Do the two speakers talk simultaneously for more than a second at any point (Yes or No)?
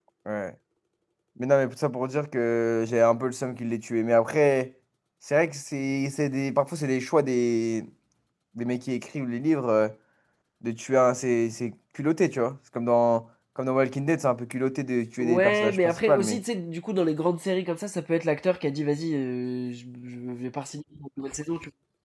Yes